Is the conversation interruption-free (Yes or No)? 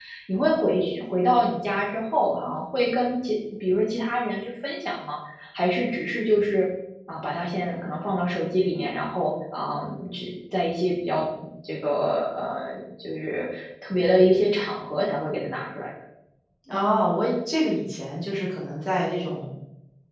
Yes